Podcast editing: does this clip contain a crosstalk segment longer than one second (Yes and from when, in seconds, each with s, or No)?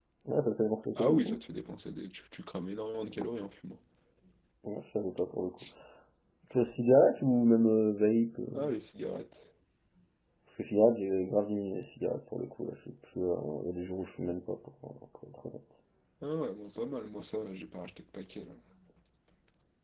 No